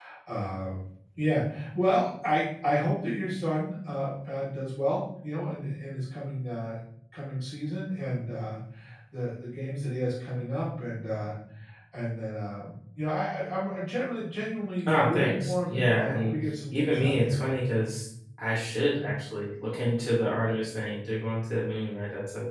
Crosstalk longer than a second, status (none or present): present